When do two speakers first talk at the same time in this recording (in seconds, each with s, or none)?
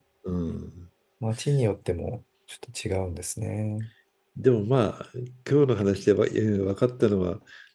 none